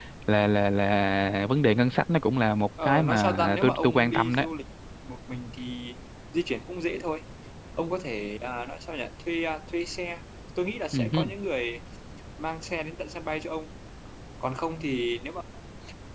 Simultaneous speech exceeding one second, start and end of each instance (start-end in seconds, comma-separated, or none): 2.8-4.4